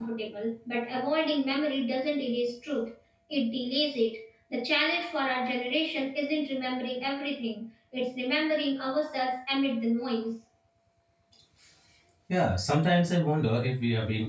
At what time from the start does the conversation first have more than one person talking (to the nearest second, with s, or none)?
none